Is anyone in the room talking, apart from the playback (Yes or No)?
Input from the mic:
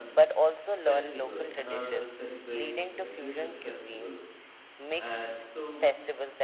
Yes